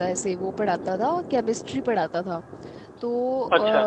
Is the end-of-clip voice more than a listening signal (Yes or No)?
No